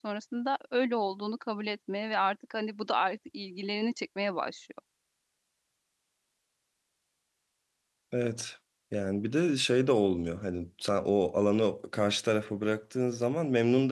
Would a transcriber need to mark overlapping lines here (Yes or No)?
No